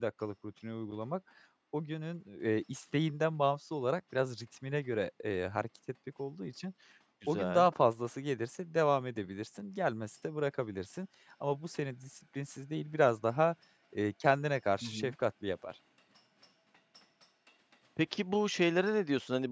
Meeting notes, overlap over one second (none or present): none